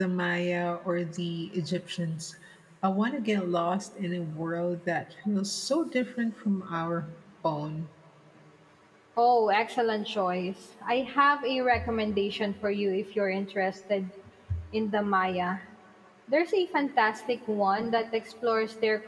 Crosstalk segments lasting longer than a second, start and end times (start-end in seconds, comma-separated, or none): none